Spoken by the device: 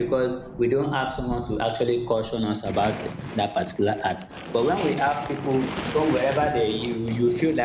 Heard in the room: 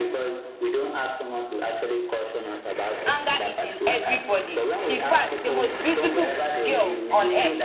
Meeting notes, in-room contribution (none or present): present